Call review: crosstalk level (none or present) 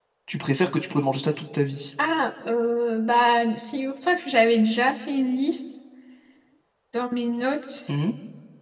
none